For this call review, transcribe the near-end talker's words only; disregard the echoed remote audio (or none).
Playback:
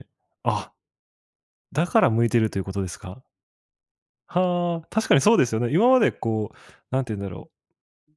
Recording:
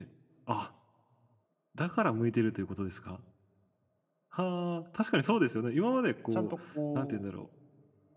ちゃんとこ